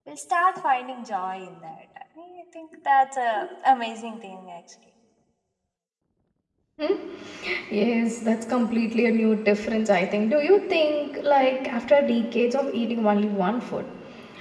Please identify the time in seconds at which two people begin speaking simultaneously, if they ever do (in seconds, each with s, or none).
none